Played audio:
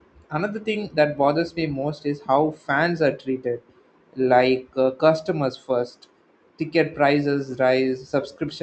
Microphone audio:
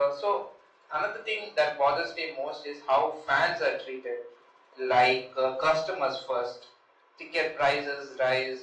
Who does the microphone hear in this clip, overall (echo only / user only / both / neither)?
echo only